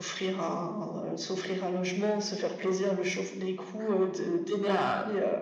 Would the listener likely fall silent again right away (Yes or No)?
No